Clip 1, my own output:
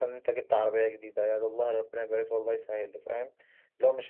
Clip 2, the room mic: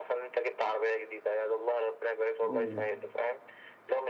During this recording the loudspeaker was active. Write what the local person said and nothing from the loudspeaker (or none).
امم